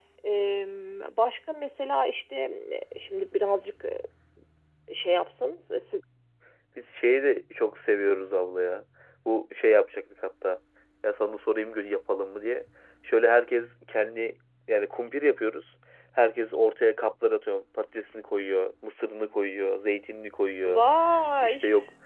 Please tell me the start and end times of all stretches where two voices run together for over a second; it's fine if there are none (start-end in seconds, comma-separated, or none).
none